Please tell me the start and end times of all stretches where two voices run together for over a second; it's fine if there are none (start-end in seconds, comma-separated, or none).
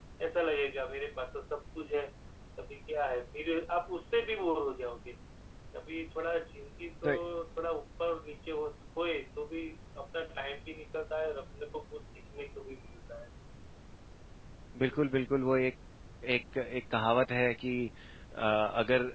none